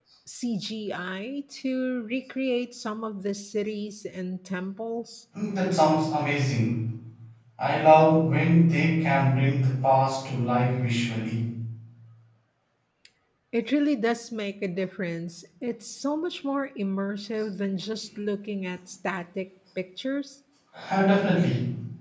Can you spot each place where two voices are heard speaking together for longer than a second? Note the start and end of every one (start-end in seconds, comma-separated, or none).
none